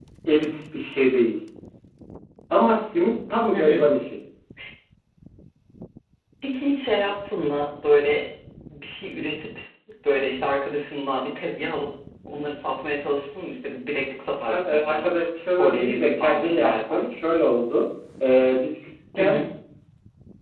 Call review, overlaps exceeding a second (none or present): present